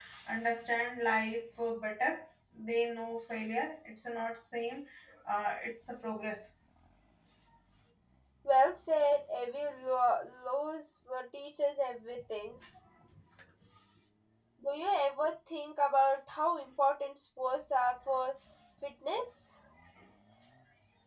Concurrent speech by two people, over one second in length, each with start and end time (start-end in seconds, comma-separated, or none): none